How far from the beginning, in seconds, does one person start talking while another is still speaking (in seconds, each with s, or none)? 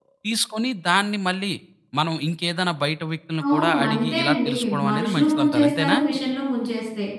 3.4 s